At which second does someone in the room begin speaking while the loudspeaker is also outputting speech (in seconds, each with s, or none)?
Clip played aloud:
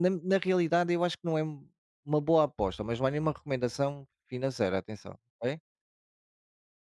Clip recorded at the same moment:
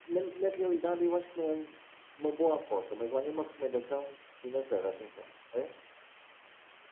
none